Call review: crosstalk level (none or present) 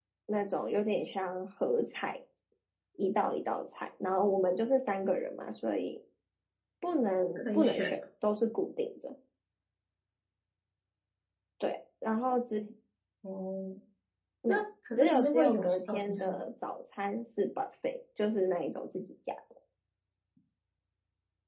present